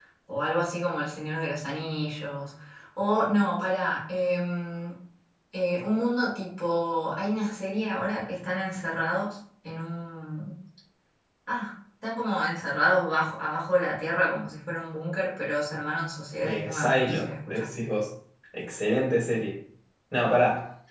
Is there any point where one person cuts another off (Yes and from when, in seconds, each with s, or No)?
Yes, from 16.4 s